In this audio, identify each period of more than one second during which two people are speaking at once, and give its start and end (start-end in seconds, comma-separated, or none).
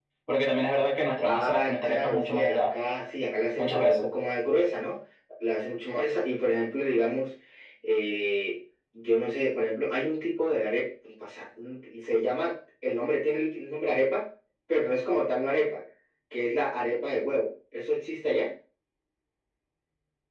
1.2-2.7